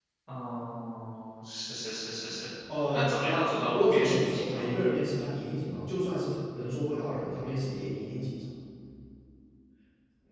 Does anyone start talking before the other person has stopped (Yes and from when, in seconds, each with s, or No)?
Yes, from 2.9 s